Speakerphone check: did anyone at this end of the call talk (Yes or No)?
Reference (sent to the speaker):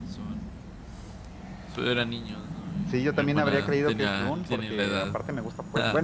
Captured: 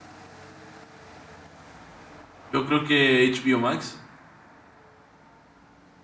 Yes